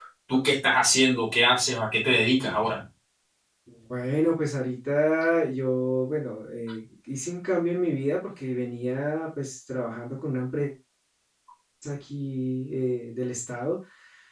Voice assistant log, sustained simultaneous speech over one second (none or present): none